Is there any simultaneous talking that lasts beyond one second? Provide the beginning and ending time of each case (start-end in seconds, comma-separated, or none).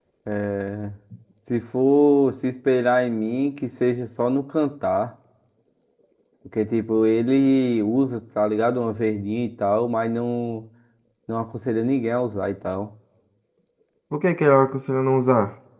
none